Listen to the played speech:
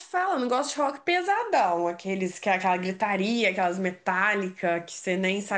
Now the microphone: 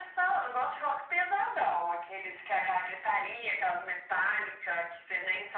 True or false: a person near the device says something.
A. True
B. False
B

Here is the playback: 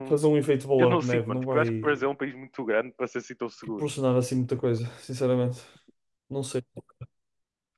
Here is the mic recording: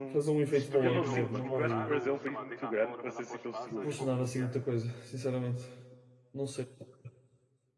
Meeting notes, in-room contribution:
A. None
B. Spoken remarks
B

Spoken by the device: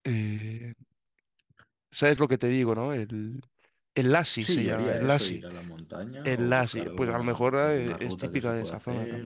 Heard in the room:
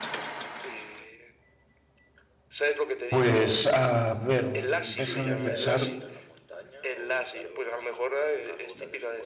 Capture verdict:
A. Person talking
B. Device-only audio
A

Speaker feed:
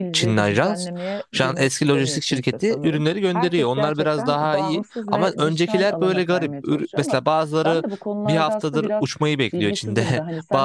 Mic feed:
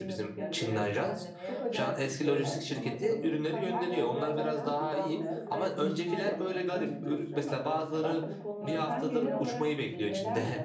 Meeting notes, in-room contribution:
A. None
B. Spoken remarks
B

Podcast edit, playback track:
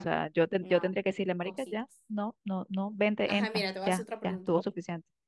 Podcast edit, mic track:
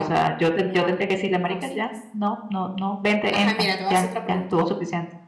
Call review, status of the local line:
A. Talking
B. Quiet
B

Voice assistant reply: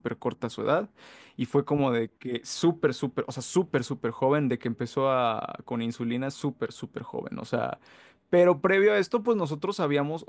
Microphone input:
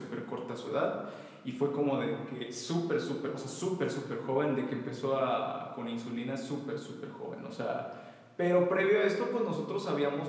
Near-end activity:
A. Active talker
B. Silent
B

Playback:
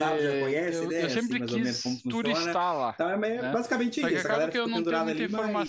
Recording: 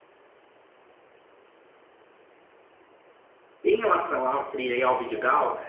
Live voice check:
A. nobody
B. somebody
B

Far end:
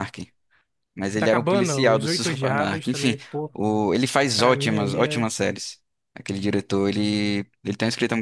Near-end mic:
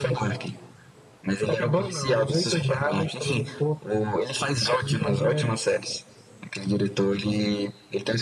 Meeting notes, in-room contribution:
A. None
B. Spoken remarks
A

